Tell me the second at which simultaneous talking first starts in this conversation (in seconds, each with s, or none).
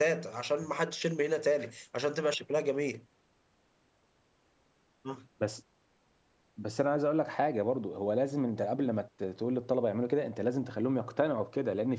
none